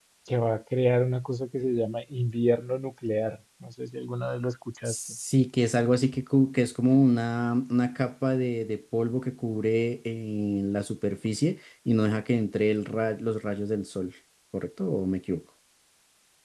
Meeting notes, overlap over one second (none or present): none